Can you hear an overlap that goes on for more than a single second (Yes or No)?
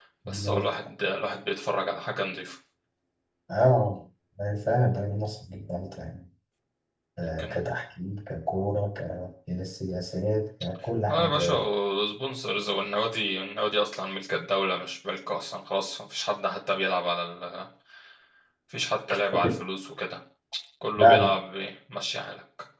No